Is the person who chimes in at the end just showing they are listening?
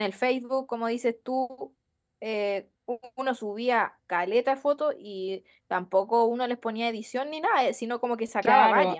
No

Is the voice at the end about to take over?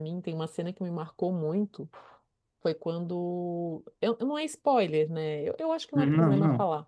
No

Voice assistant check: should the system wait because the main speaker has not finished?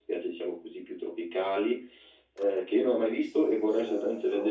Yes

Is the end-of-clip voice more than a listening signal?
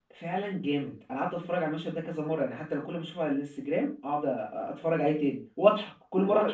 Yes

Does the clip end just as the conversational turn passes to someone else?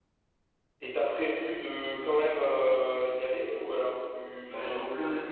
Yes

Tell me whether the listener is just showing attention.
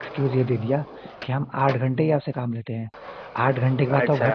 Yes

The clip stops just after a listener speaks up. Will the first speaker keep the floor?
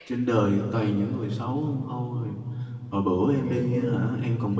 Yes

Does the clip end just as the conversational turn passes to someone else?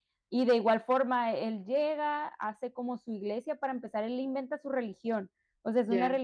No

